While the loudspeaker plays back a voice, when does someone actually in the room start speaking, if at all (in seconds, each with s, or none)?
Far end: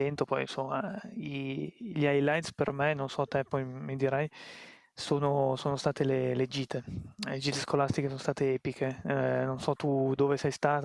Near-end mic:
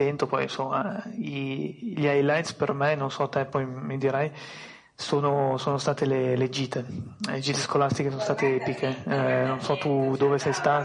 8.2 s